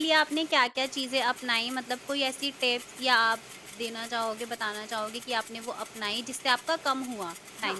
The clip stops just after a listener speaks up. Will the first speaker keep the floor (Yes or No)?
No